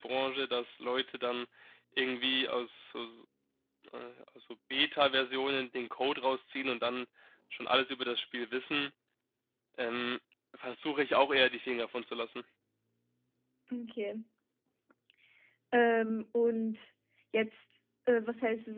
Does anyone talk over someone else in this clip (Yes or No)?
No